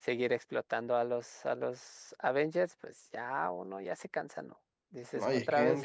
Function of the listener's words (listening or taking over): taking over